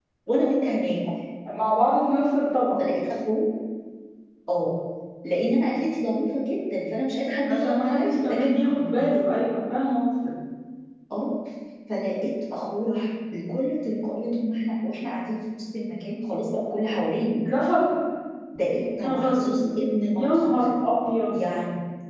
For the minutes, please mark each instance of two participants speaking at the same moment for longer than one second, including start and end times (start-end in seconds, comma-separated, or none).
7.5-9.2